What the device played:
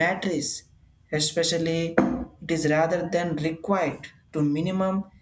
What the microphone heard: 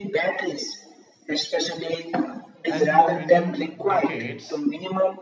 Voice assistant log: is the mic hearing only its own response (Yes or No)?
No